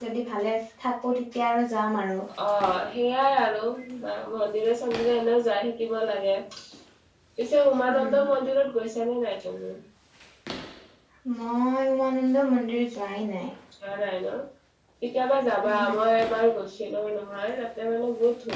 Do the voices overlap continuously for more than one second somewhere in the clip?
No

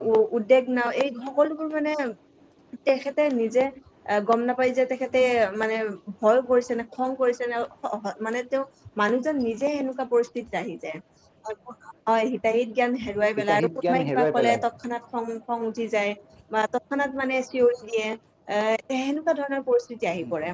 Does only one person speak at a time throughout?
No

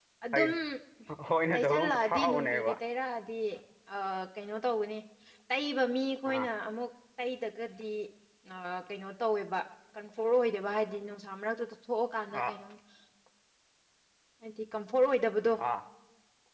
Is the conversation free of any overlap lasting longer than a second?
No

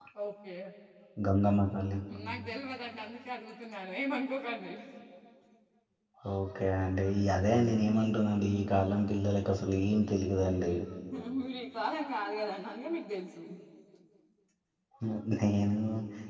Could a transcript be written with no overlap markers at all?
Yes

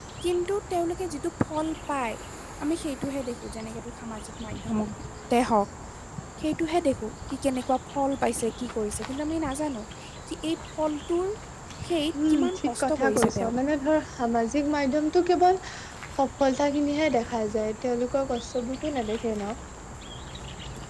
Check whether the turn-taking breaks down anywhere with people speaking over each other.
Yes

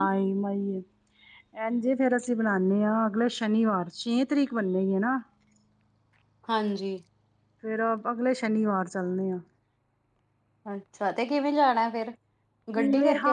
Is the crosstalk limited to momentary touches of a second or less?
Yes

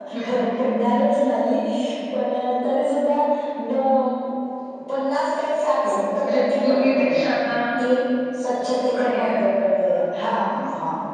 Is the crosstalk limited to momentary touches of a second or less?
No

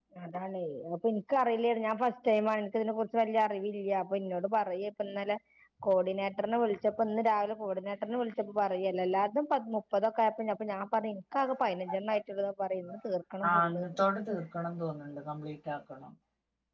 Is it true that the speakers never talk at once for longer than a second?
Yes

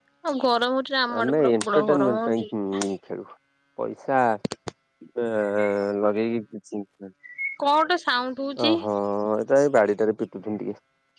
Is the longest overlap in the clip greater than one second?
Yes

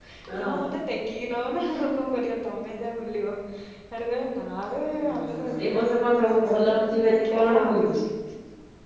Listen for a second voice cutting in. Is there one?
Yes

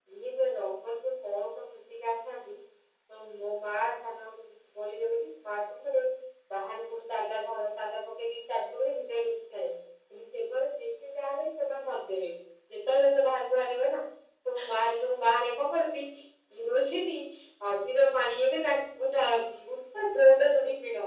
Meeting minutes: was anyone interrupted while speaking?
No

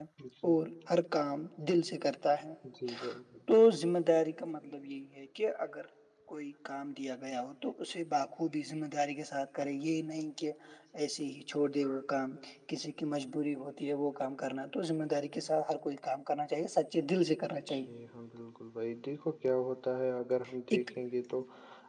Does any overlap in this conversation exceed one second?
No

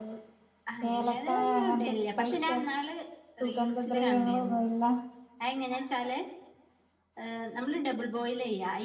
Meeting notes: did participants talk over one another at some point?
Yes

